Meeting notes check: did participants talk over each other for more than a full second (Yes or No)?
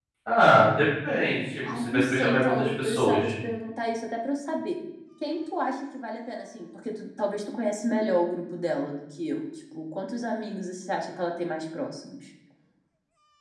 Yes